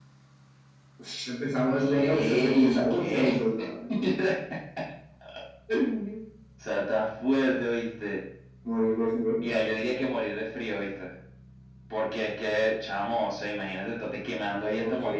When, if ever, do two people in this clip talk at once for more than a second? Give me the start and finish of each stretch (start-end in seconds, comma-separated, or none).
1.7-3.4